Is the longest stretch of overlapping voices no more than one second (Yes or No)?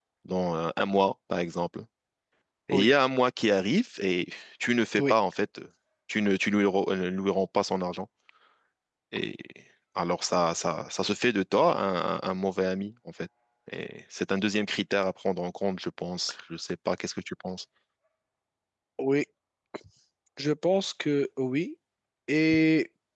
Yes